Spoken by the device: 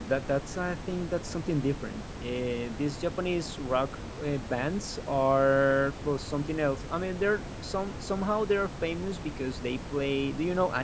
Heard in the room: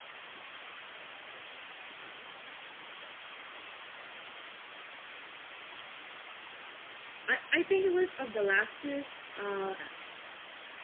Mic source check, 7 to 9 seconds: user only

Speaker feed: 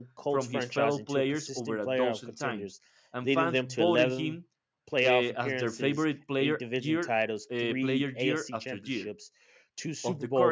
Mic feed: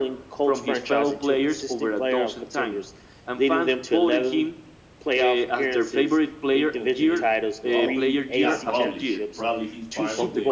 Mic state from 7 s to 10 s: both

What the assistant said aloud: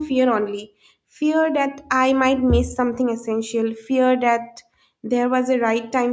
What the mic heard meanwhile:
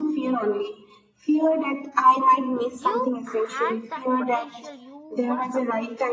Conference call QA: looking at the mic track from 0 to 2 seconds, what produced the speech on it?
echo only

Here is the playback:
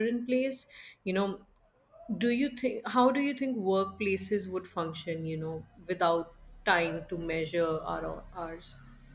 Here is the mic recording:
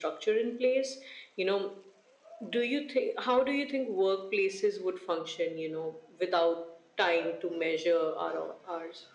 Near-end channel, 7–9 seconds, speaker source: echo only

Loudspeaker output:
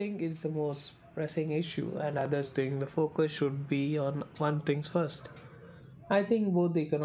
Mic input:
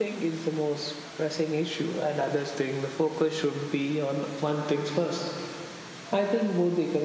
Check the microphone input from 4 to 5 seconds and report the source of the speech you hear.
echo only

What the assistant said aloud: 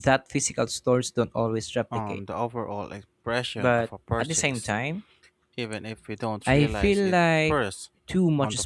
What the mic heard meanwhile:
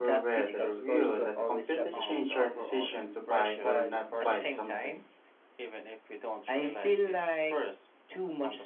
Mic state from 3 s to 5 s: both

